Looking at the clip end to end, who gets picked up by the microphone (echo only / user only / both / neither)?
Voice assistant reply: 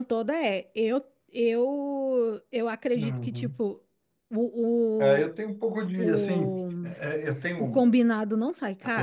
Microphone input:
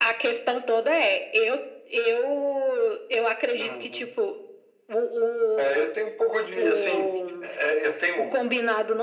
echo only